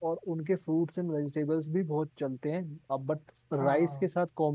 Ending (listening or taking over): listening